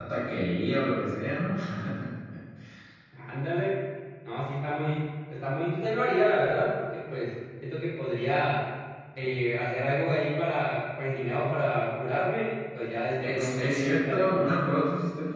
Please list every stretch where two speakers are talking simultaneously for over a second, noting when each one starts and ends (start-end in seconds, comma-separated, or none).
13.3-14.5